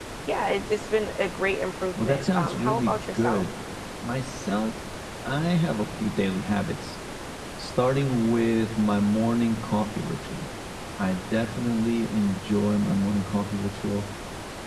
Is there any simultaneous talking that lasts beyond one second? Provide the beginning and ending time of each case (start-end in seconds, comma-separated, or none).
2.0-3.4